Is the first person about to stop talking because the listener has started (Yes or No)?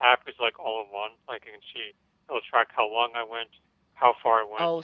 Yes